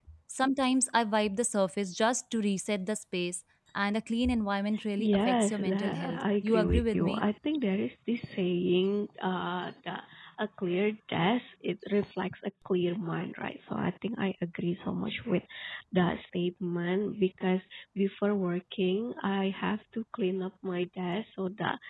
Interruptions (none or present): present